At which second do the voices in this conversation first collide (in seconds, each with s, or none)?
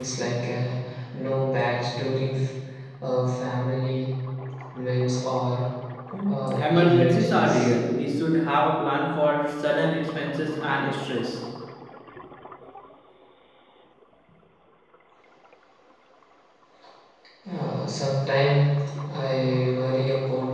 6.3 s